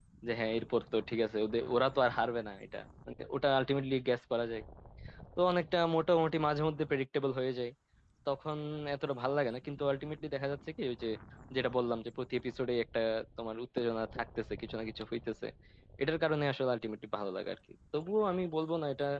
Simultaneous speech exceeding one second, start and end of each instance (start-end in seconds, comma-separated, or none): none